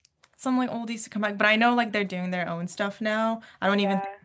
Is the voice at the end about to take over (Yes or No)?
No